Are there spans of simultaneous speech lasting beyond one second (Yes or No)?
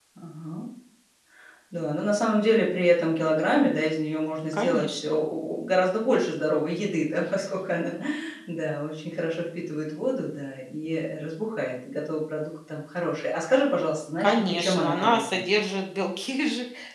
Yes